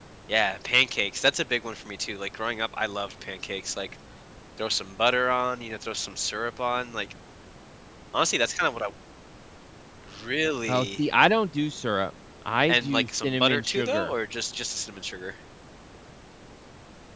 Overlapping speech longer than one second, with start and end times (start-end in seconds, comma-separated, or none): 12.7-14.1